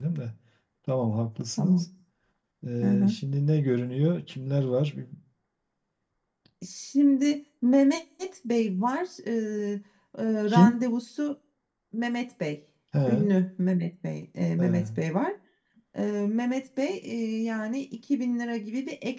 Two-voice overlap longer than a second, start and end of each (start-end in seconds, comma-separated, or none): none